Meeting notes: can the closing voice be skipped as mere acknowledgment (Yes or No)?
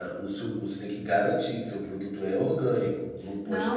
No